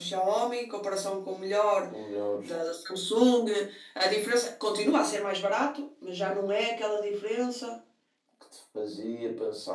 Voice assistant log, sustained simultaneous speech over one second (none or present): none